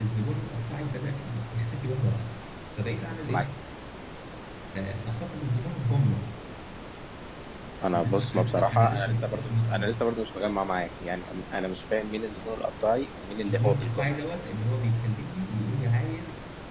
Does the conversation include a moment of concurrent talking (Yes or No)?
Yes